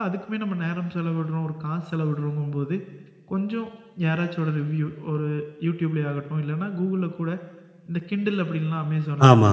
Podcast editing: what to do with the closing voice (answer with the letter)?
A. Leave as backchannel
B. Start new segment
A